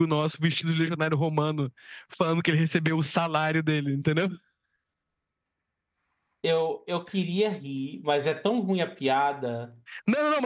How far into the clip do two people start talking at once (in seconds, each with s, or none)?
none